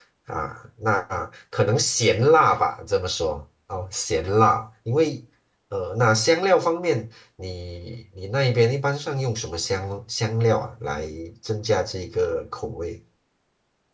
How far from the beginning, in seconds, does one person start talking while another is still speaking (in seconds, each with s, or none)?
none